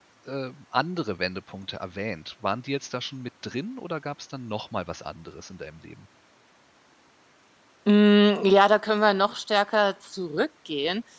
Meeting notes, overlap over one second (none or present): none